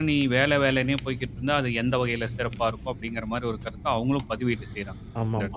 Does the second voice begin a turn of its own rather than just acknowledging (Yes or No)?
Yes